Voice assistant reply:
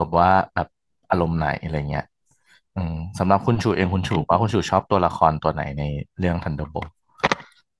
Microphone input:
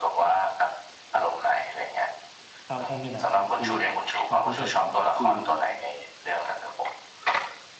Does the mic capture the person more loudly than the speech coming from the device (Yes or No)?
No